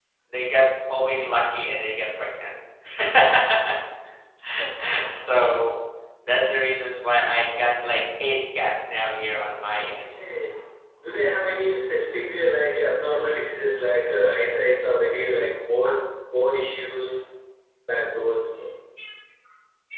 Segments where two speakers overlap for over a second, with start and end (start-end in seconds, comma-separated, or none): none